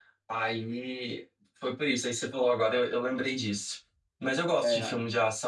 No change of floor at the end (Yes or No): Yes